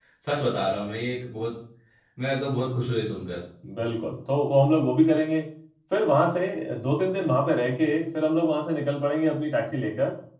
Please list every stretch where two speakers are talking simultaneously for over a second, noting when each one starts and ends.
none

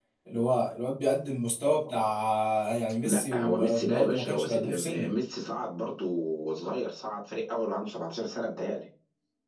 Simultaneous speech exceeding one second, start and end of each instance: 3.0-5.1

